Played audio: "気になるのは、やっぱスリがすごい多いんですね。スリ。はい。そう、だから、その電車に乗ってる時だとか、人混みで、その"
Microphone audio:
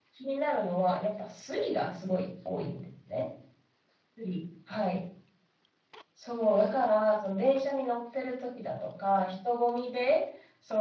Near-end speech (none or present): none